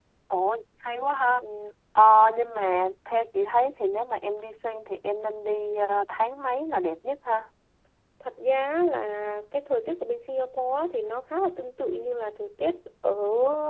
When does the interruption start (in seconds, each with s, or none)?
none